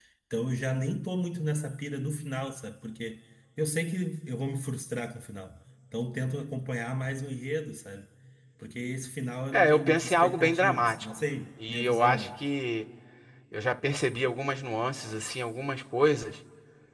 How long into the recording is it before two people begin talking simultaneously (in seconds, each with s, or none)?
9.5 s